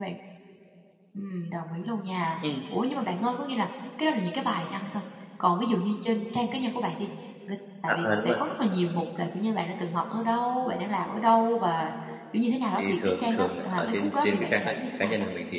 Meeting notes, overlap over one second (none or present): present